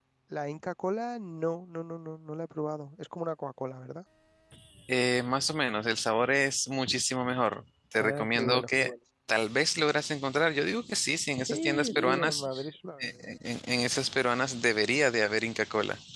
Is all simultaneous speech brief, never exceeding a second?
No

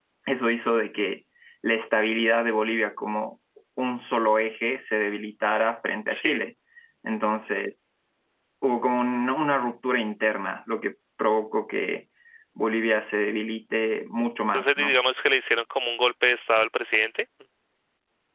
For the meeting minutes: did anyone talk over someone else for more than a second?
No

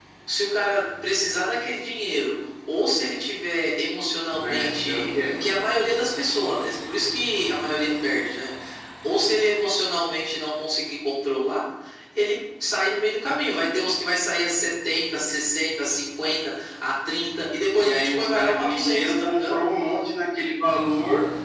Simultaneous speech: Yes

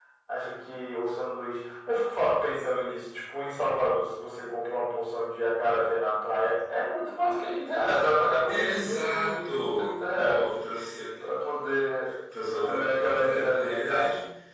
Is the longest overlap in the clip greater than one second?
Yes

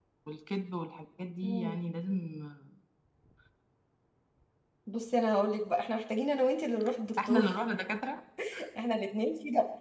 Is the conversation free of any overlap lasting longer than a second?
Yes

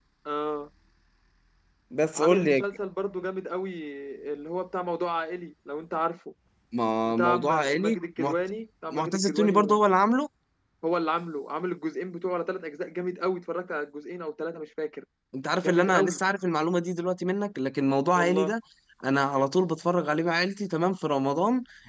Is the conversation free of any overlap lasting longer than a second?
No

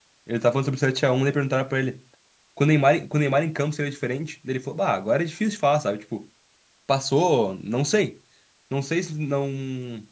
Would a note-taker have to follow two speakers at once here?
No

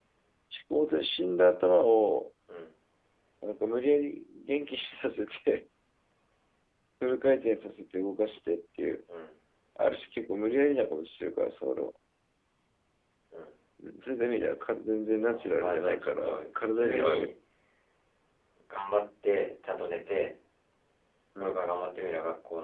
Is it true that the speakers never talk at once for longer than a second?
No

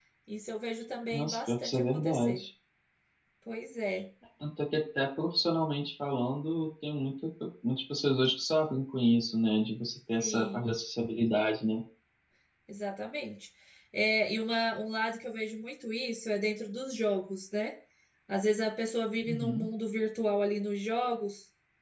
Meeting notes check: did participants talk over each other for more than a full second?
Yes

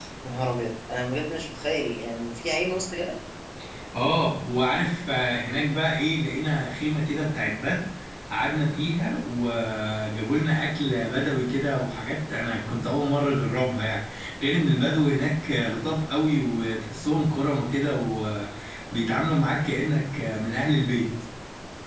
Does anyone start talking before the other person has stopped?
No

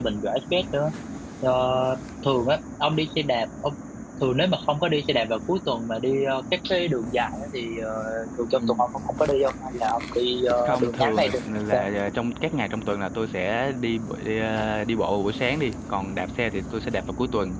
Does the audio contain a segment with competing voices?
Yes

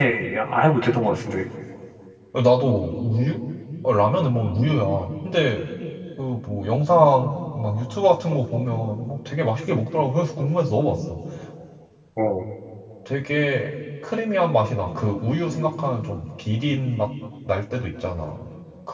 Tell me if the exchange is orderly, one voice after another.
Yes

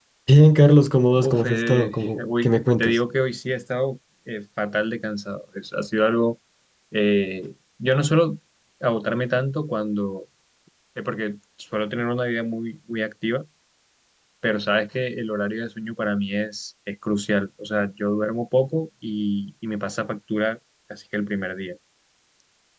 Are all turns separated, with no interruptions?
No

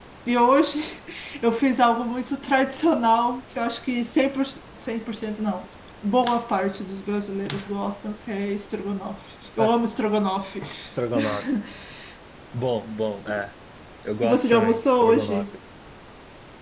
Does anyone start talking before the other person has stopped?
Yes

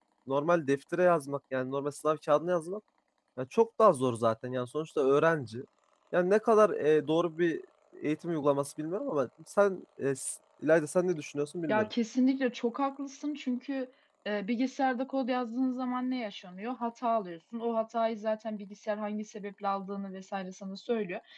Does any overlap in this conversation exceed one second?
No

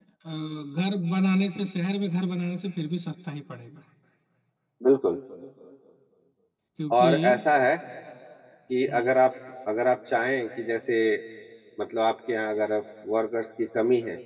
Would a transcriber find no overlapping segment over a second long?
Yes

